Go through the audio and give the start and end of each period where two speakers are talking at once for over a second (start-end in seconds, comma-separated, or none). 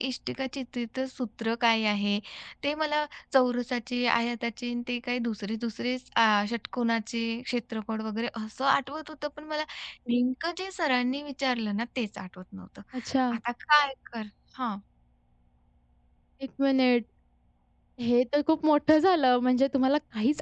none